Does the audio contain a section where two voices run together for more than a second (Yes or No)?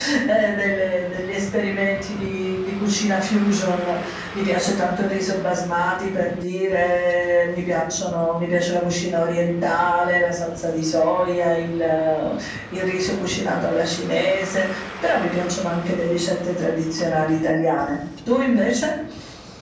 No